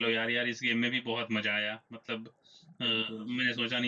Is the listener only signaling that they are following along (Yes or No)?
Yes